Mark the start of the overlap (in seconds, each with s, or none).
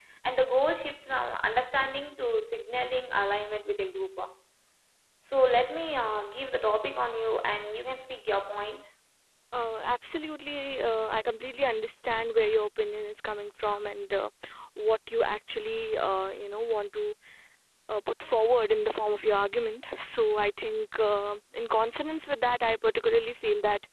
none